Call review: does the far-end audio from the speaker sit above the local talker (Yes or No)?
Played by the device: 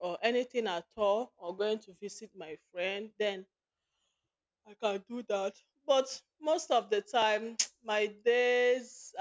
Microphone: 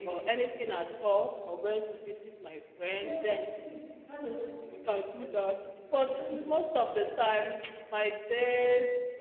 Yes